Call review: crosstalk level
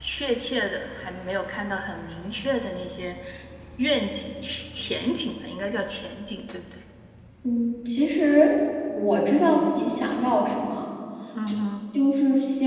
none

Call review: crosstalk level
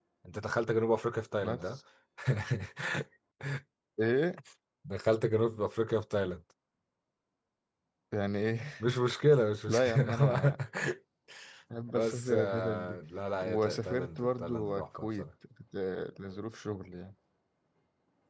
present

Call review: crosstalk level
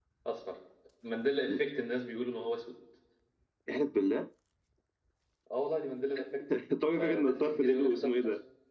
present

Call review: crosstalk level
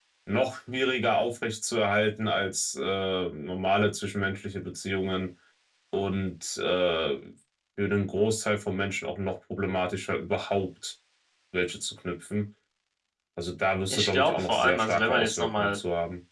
present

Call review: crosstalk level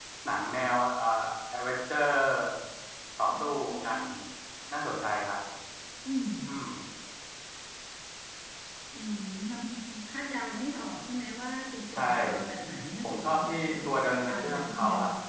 present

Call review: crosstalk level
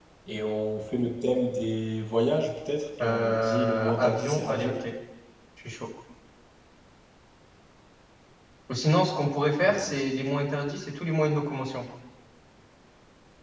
present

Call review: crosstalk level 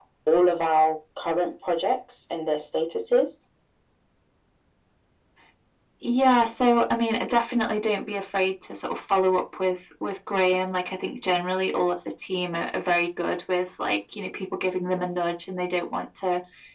none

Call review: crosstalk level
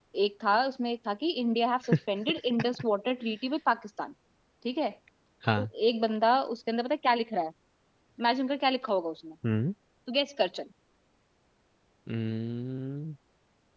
none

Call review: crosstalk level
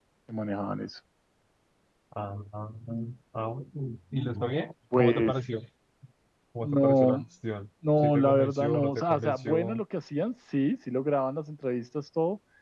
present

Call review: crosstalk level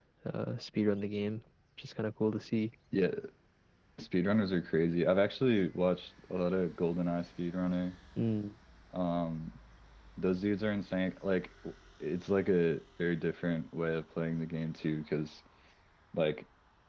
none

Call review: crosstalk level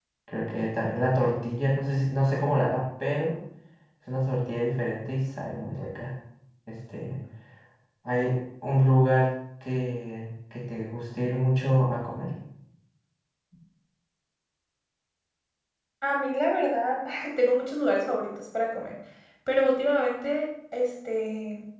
none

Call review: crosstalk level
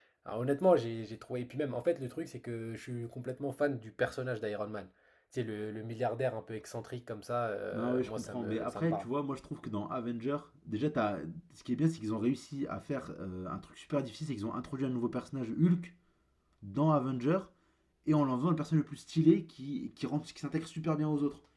present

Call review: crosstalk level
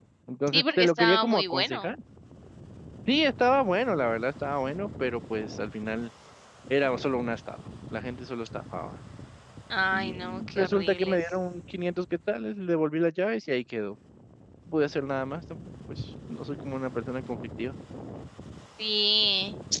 present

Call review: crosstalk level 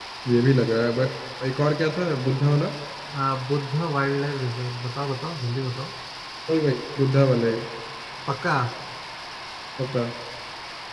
none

